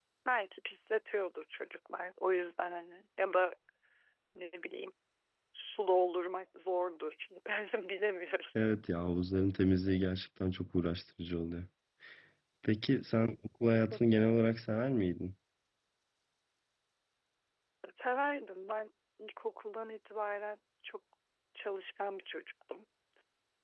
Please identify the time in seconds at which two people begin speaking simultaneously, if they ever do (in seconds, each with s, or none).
none